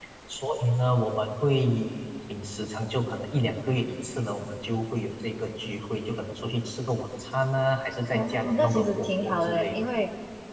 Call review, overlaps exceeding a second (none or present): present